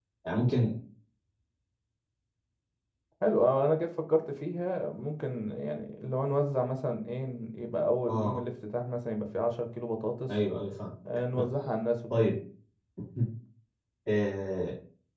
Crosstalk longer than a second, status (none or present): none